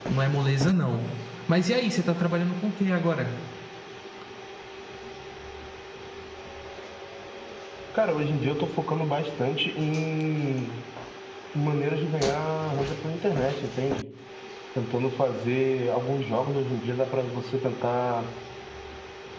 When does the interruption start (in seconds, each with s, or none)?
none